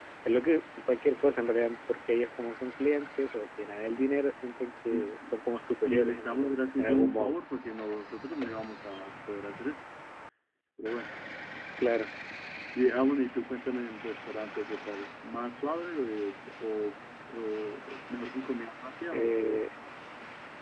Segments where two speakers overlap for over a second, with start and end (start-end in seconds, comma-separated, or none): 5.8-7.4